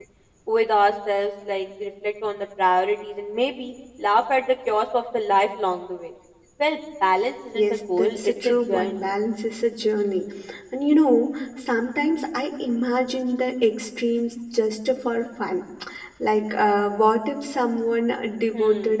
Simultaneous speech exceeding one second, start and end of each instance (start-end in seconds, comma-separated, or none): 7.5-9.0